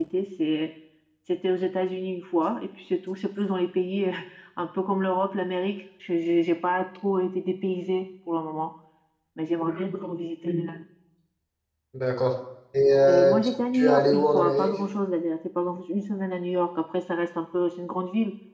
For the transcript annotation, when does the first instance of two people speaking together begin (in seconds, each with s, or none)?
13.1 s